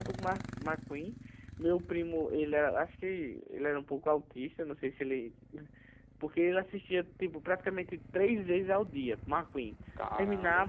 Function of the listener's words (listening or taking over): listening